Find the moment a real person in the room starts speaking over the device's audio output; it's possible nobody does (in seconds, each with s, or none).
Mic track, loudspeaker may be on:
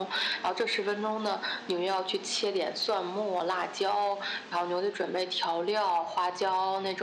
none